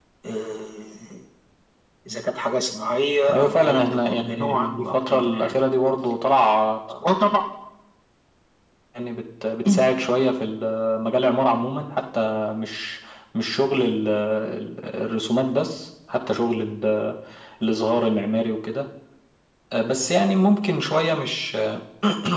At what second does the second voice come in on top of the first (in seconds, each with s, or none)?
3.3 s